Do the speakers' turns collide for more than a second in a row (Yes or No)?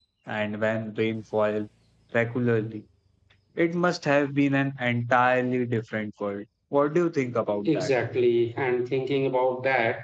No